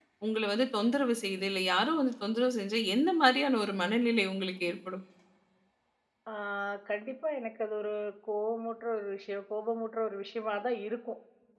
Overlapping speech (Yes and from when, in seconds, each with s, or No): No